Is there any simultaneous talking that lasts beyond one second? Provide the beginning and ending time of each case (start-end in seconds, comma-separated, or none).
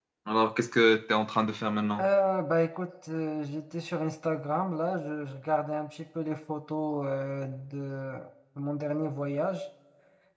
none